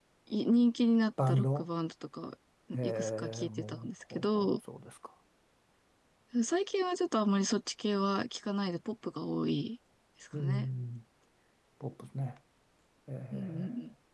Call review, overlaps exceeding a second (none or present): present